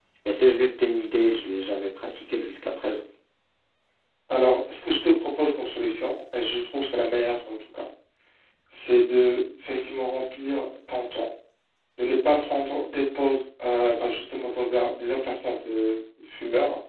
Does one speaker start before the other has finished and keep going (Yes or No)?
No